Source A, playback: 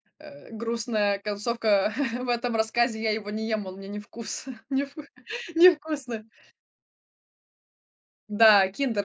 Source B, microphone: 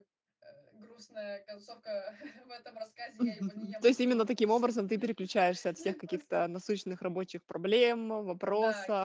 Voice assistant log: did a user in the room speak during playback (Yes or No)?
Yes